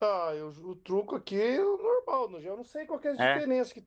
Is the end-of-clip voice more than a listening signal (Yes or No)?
No